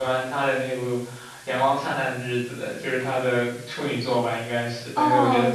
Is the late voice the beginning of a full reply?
Yes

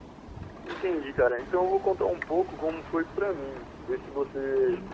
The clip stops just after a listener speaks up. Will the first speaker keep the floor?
No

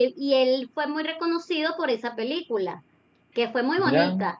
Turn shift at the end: No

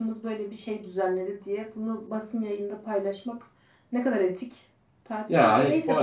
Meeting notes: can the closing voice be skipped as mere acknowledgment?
No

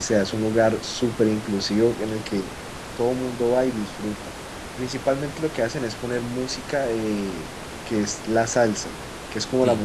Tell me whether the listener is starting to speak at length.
No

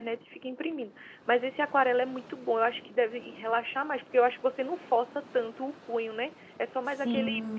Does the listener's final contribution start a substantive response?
Yes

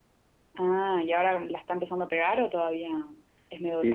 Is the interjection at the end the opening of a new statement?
Yes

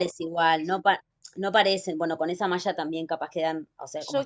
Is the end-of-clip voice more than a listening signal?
Yes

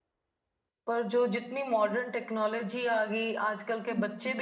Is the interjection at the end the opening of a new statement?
No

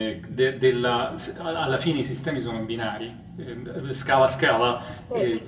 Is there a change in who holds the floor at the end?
No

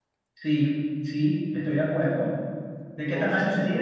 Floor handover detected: Yes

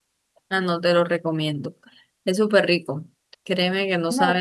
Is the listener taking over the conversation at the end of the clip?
No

